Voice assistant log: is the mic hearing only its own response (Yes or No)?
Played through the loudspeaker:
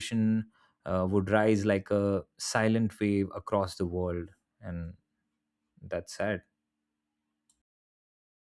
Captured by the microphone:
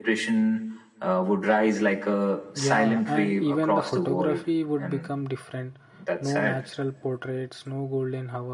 No